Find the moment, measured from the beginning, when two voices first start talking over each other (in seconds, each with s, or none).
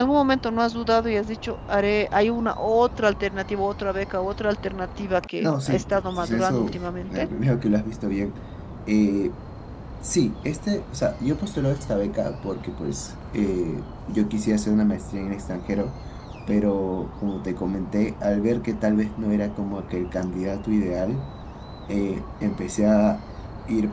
5.4 s